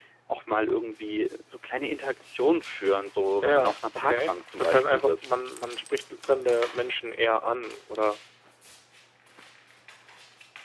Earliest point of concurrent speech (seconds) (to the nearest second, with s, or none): 3 s